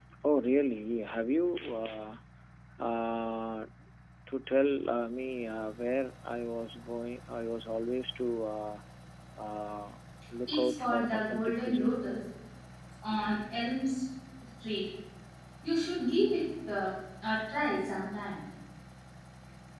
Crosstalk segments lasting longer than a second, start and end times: 10.5-12.0

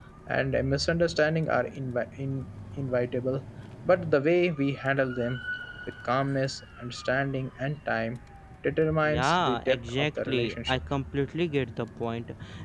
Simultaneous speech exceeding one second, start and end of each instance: 9.0-10.8

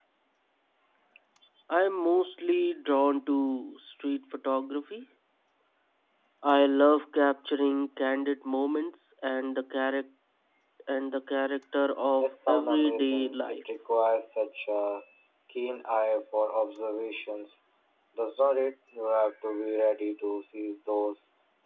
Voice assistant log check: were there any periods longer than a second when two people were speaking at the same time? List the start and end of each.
12.2-13.6

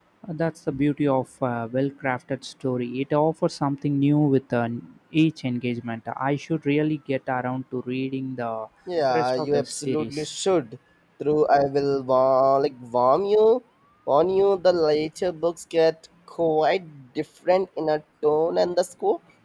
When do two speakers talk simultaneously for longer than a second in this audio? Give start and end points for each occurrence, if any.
9.1-10.3

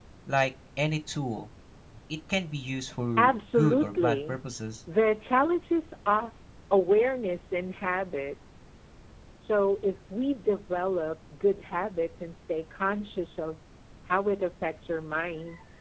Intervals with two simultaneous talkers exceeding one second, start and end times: 3.2-4.4

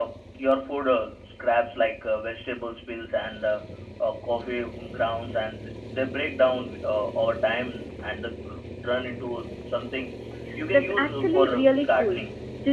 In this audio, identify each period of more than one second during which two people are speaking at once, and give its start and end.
10.7-12.2

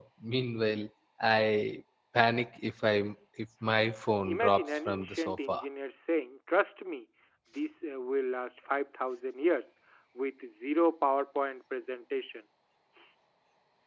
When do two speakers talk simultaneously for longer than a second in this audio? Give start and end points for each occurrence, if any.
4.2-5.6

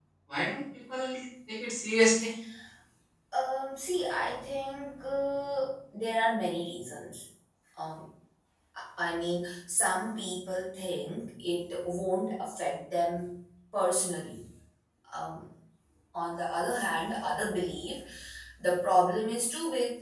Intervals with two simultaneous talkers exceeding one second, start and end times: none

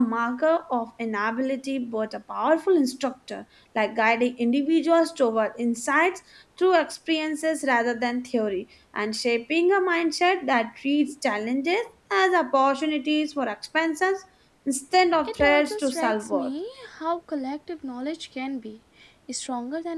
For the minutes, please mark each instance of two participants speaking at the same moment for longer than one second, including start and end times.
15.2-16.5

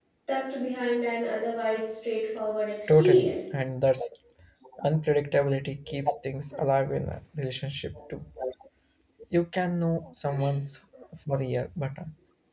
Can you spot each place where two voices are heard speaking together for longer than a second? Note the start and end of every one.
none

